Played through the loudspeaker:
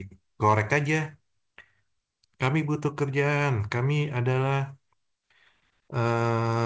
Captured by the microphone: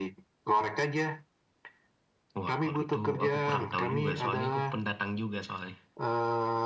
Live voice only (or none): Wah, kalau itu aku kurang tahu juga, soalnya aku pendatang juga soalnya.